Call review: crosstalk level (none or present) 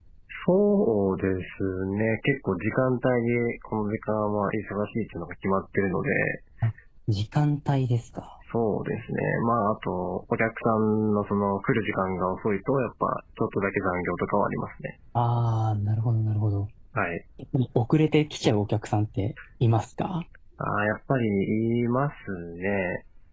none